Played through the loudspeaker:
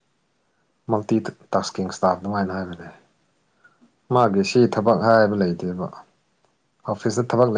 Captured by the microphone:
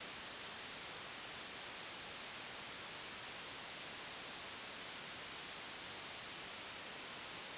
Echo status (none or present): none